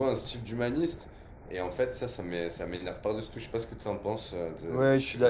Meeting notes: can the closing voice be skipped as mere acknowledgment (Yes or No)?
No